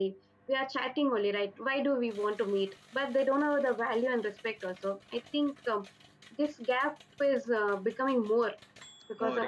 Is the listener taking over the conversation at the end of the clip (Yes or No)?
Yes